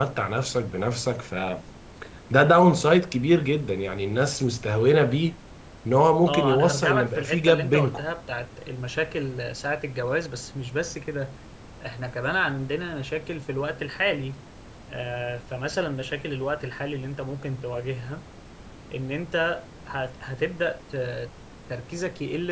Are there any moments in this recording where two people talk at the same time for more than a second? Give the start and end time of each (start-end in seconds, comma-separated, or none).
6.3-8.0